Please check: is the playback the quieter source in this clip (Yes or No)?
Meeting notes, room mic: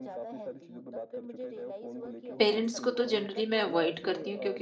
Yes